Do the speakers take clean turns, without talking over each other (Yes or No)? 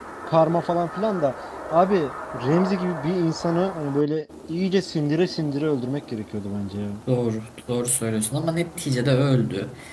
Yes